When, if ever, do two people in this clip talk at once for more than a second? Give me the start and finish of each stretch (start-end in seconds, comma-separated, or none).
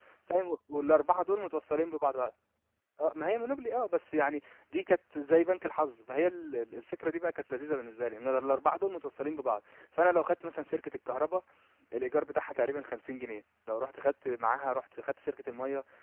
none